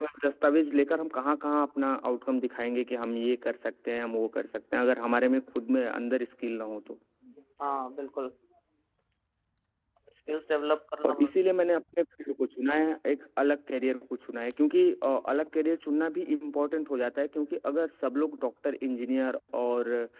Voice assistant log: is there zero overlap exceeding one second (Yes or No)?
Yes